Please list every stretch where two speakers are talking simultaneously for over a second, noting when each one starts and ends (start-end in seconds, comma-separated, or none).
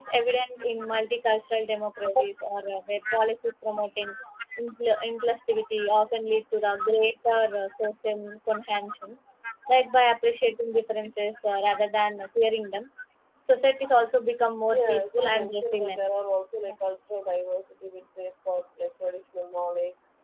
14.7-16.1